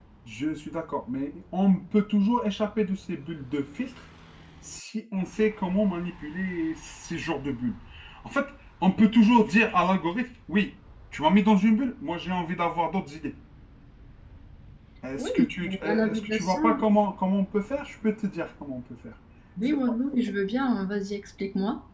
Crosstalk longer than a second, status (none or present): present